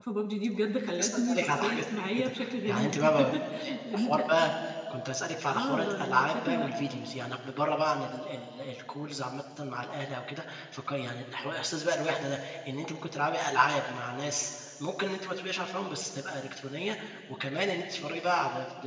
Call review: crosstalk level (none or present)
present